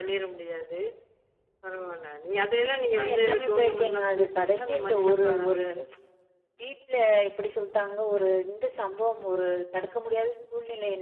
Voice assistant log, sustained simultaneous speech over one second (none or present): present